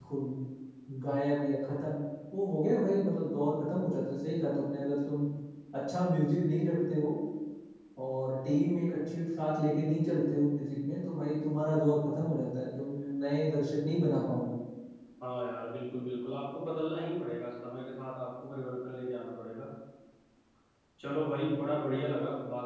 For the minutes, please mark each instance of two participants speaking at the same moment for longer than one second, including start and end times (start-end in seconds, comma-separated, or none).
none